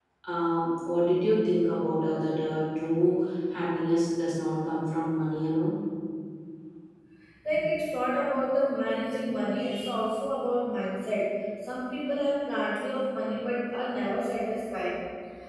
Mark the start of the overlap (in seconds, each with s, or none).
none